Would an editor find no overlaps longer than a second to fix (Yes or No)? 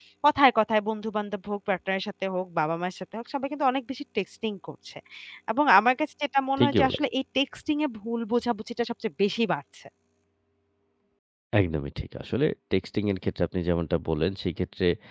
Yes